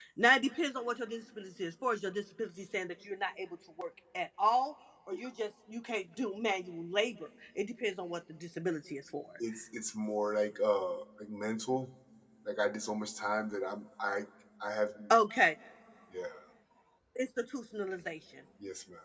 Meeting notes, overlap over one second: none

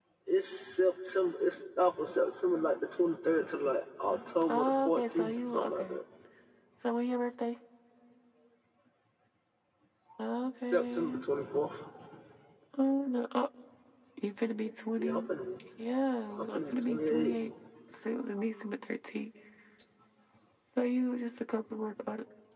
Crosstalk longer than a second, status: present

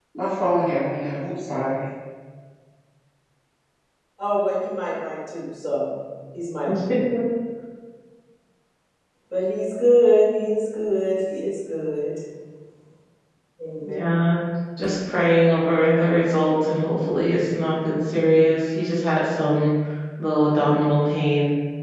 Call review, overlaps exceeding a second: none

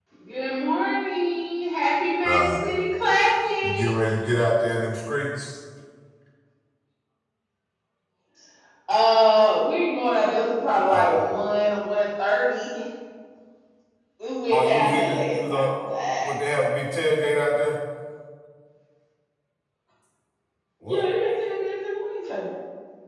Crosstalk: present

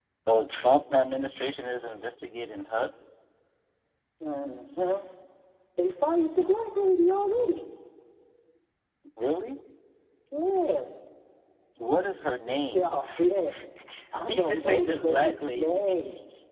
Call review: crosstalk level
present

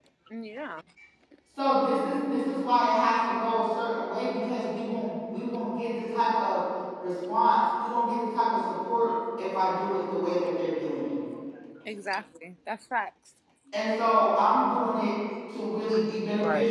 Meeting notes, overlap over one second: none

